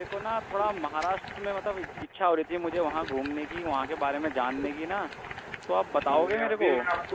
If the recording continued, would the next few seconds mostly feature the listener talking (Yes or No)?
Yes